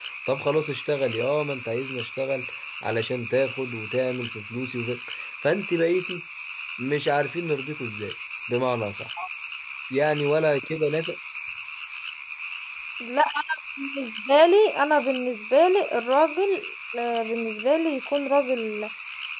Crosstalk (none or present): none